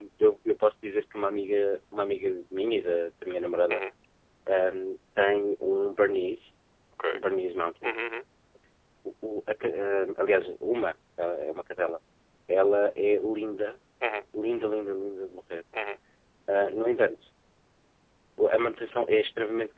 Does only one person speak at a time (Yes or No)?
Yes